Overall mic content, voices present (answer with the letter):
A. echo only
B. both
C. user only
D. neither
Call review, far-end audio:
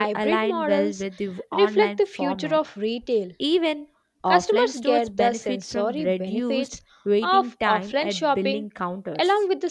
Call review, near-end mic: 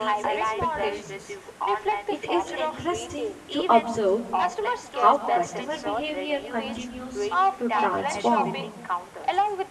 B